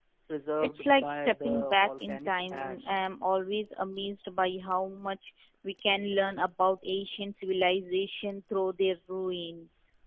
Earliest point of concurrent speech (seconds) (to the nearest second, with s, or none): 1 s